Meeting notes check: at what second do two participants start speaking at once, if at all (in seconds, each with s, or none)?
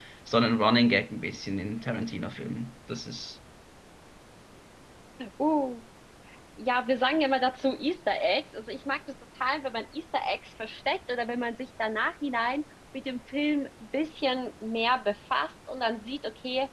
none